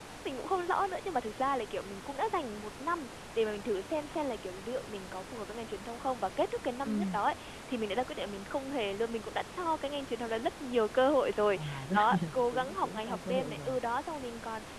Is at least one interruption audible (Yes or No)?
Yes